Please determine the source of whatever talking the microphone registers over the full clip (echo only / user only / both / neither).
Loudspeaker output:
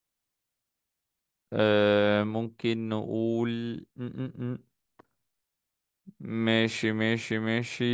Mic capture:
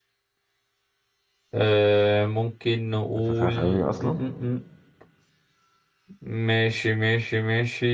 both